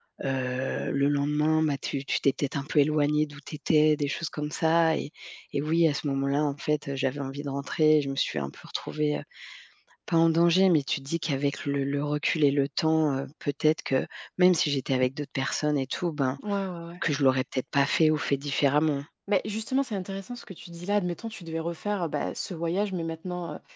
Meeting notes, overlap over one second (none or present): none